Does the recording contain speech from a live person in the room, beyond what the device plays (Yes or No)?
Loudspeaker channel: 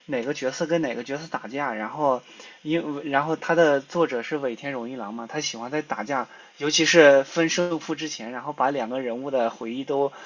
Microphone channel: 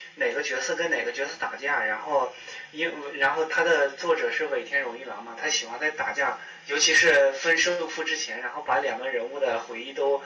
No